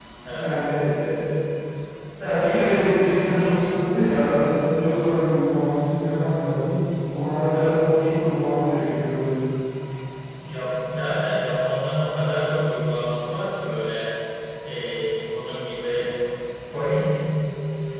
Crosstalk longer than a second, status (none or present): none